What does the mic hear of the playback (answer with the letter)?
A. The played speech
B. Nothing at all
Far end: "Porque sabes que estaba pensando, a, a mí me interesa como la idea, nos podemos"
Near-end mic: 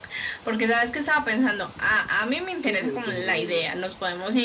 A